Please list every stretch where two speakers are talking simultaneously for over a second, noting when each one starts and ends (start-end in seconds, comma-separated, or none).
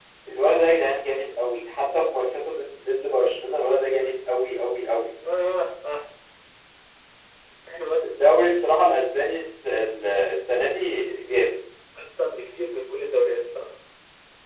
none